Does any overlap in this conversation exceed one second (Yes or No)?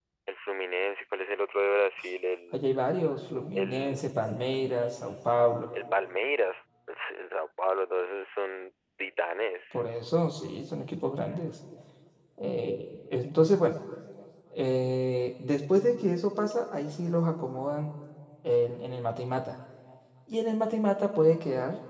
No